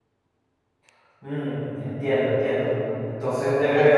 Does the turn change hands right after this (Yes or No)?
Yes